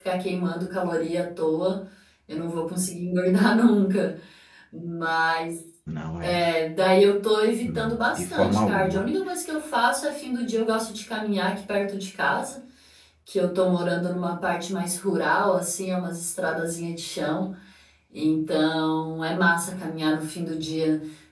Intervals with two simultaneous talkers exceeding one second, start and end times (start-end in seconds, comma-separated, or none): 7.6-9.0